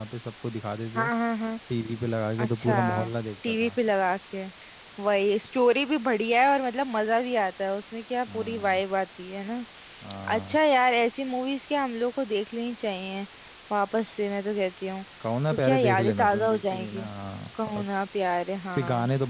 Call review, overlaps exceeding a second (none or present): present